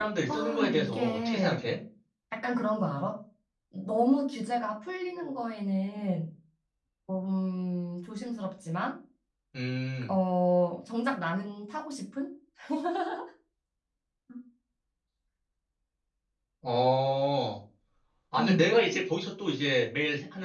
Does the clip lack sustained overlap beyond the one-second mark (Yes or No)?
No